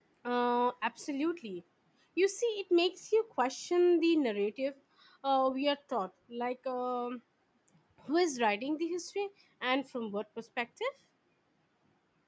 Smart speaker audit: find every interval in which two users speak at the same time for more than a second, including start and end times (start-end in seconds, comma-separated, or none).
none